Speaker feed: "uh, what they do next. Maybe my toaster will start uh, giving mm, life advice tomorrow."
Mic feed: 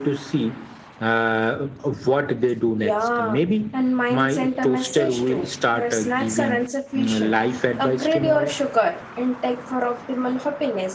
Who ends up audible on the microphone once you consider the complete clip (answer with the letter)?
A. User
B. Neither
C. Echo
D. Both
D